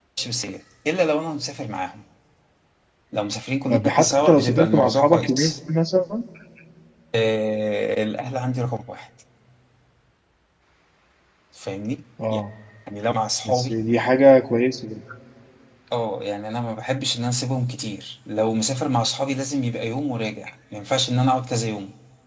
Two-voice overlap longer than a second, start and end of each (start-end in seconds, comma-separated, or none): 3.7-5.5